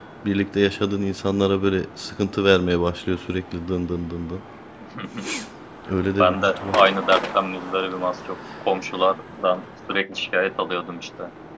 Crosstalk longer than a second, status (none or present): none